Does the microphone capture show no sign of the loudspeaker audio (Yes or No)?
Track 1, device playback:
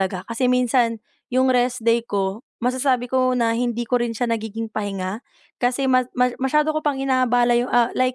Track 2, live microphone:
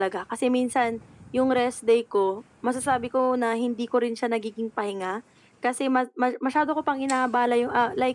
No